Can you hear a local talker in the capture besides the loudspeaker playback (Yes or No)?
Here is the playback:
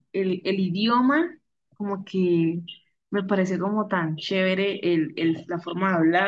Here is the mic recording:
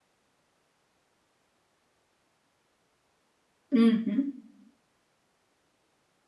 Yes